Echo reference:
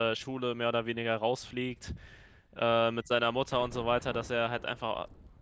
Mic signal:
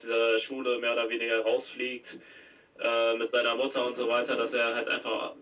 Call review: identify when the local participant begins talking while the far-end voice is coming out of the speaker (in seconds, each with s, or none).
none